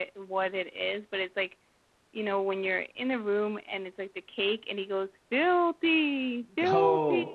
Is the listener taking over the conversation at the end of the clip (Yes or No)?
Yes